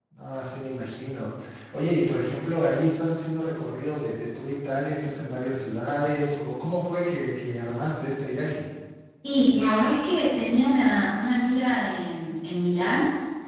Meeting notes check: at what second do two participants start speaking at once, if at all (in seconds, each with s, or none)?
none